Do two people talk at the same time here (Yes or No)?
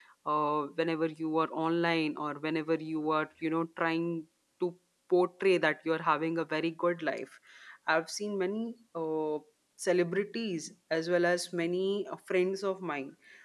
No